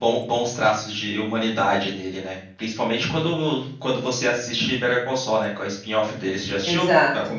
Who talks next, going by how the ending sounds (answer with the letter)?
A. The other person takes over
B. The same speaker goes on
A